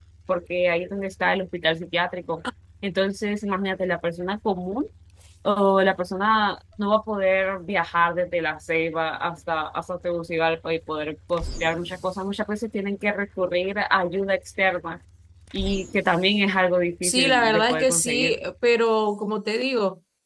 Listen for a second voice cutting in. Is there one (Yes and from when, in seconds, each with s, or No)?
Yes, from 17.0 s